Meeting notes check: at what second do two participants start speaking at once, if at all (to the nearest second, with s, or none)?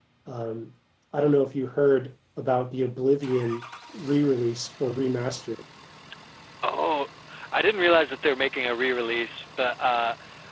none